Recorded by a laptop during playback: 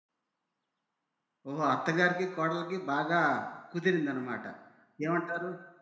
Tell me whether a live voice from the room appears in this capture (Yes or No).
Yes